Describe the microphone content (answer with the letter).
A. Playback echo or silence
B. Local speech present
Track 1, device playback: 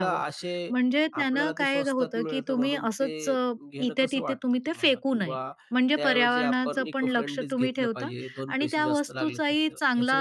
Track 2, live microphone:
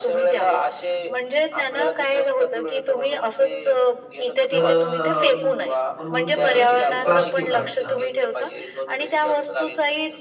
B